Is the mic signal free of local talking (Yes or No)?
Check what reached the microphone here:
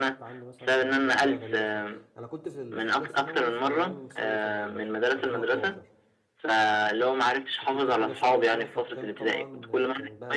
No